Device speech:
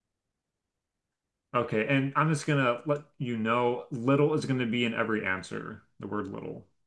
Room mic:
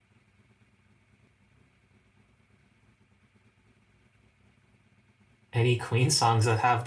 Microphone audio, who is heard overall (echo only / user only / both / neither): user only